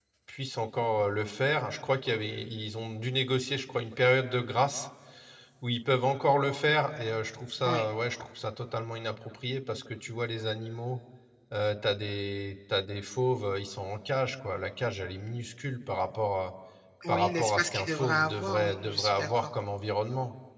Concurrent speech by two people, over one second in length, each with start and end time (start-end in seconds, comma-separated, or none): 17.1-19.5